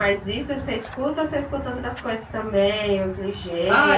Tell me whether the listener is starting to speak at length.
Yes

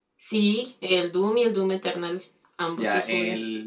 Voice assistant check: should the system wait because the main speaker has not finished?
No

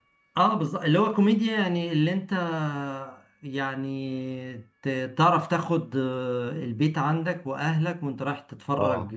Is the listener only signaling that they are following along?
Yes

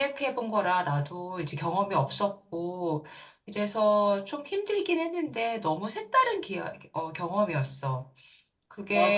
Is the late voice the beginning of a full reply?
Yes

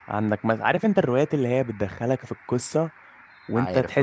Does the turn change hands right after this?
No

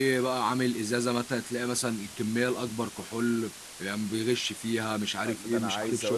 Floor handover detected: Yes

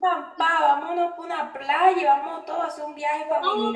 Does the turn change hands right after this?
Yes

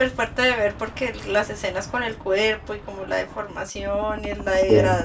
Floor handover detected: No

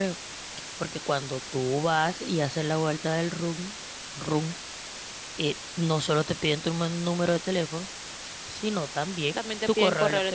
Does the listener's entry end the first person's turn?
Yes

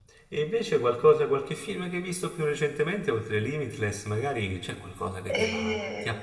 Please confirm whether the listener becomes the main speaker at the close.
No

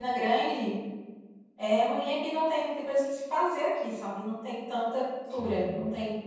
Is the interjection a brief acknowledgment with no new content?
Yes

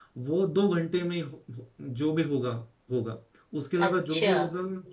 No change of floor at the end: Yes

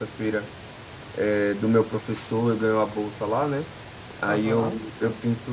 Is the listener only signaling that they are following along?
Yes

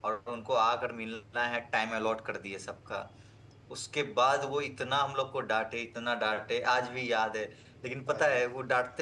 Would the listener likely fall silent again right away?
Yes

